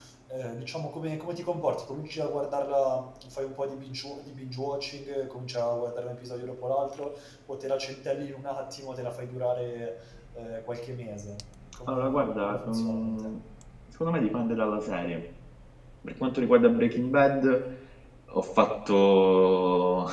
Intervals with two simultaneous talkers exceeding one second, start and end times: 11.9-13.3

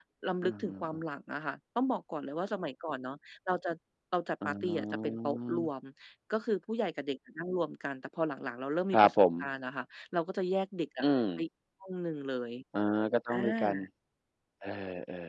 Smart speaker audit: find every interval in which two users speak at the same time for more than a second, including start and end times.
4.4-5.7

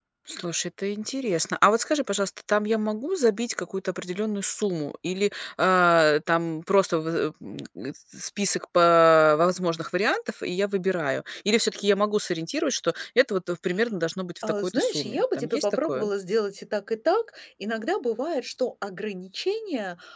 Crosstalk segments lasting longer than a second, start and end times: 14.4-16.1

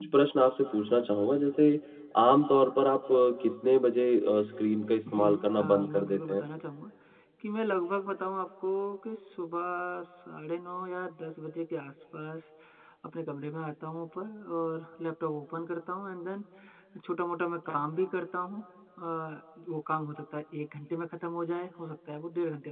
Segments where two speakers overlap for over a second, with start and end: 5.1-6.5

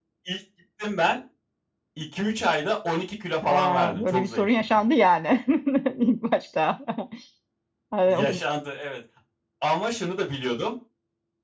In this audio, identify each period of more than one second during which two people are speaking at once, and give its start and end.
3.4-4.8

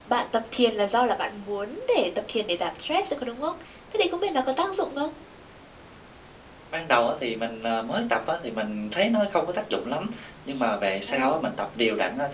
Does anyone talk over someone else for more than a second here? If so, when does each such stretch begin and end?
none

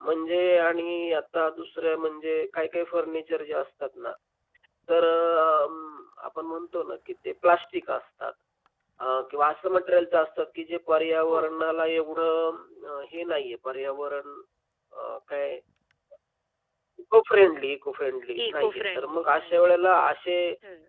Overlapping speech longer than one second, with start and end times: 18.4-19.8

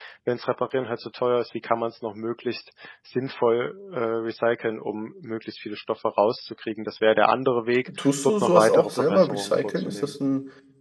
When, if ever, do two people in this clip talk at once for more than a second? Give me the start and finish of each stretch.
8.0-10.1

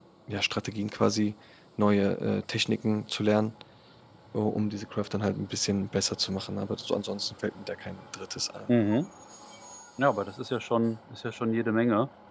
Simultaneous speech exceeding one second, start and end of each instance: none

